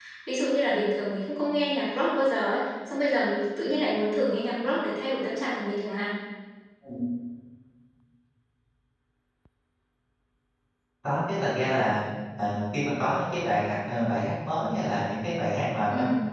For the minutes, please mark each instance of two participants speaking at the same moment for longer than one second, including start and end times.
none

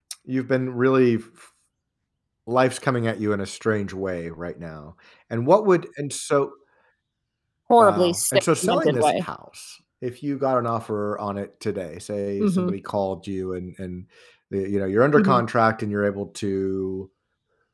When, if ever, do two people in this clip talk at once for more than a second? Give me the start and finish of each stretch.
7.8-9.2

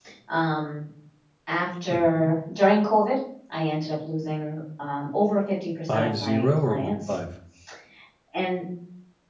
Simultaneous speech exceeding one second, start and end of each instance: 5.9-7.1

